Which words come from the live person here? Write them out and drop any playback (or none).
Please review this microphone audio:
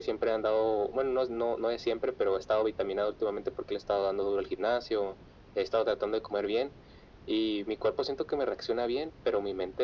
none